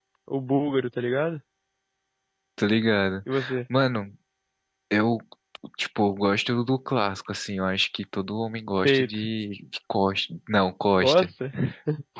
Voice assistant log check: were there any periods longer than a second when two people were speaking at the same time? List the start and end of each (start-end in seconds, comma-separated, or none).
none